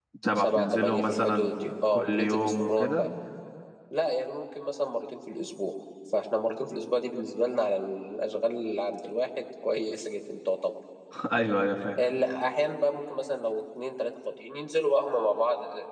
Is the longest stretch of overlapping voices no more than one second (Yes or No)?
No